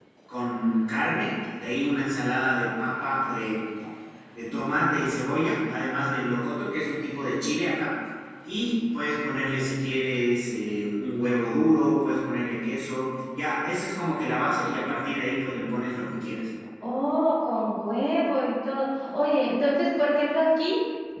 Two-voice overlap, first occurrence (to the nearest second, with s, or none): none